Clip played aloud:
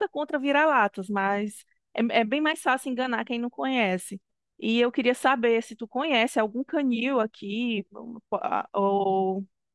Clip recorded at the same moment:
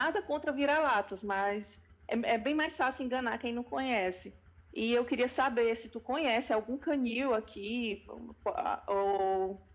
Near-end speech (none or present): none